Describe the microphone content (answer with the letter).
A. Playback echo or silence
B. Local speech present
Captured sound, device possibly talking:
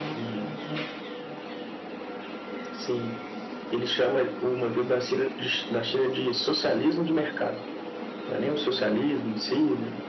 A